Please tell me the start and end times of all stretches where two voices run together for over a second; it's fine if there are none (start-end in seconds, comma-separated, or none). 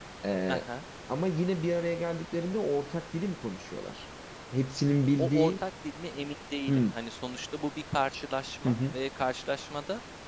none